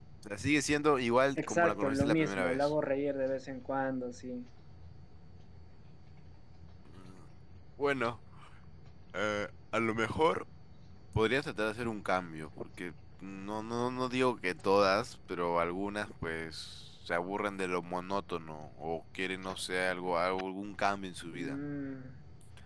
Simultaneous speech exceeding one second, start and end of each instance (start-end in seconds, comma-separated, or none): 1.4-2.7